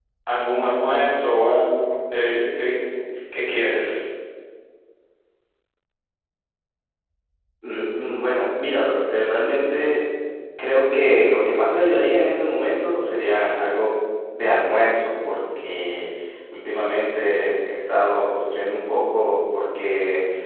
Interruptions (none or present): none